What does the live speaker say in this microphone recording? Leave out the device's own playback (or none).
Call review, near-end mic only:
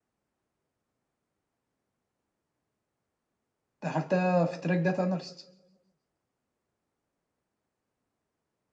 دخلتها في تراك داتا اناليست